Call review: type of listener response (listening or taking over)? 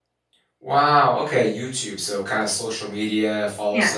listening